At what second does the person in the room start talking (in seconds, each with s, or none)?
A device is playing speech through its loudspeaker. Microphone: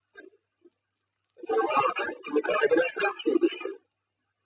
none